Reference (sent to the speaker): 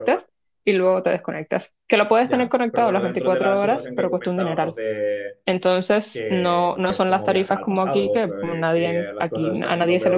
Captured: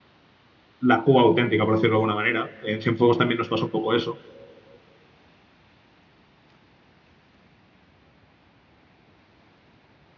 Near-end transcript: la Cuba auténtica, por decirlo de alguna manera. En Cienfuegos también nos pasó un poco eso.

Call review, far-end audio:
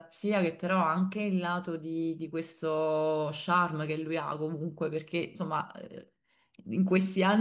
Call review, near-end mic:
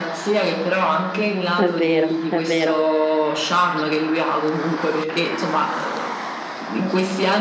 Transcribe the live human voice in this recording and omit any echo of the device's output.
È vero, è vero,

